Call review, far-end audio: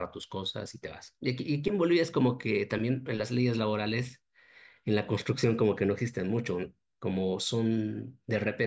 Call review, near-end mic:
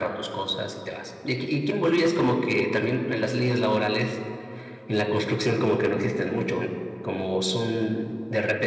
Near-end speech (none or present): none